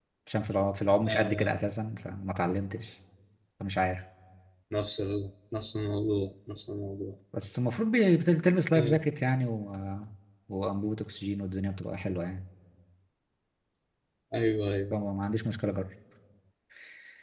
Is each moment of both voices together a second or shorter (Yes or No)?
Yes